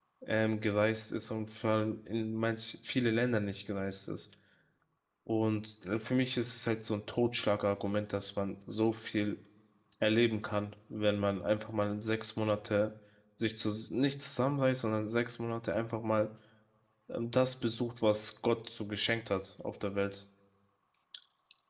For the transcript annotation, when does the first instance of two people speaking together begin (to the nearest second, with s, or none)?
none